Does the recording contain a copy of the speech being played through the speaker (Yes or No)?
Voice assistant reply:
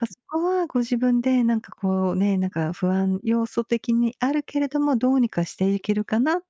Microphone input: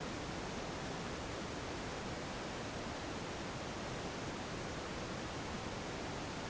No